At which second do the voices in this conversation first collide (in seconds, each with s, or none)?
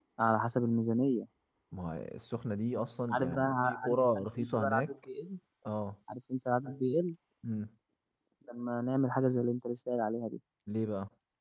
3.1 s